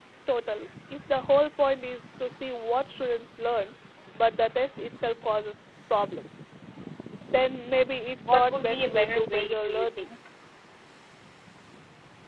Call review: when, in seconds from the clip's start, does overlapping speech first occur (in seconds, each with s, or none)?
8.2 s